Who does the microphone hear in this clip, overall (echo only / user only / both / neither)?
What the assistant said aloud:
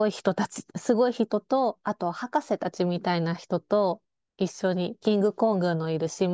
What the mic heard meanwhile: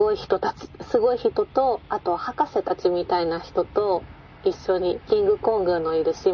echo only